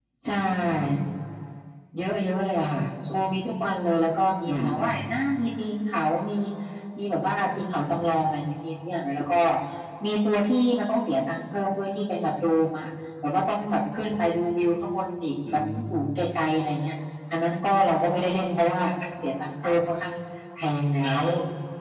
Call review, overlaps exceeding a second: none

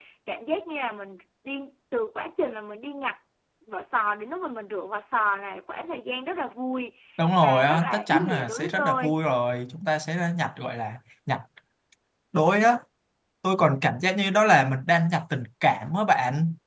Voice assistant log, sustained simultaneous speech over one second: present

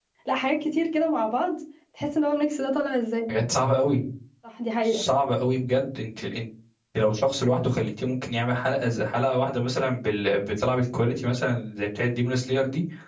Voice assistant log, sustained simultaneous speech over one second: none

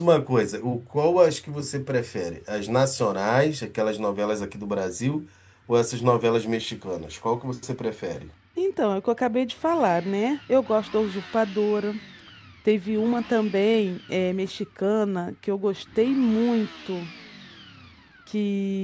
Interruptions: none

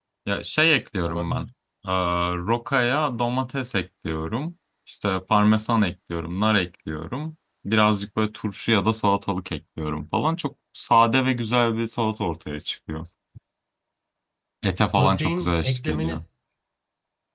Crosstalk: present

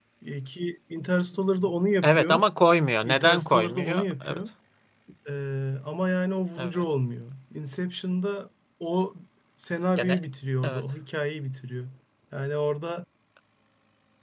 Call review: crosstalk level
present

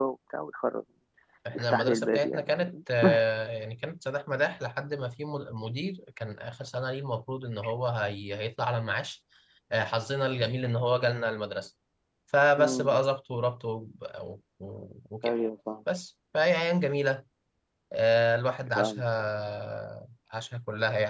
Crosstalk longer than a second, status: present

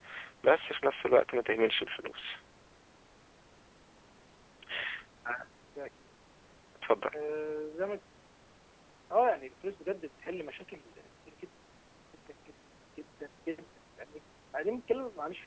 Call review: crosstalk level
none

